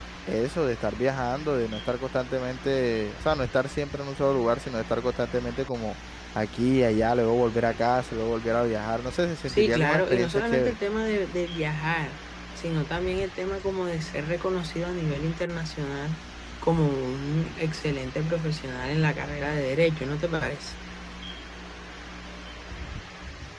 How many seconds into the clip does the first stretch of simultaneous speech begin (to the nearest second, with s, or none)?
9 s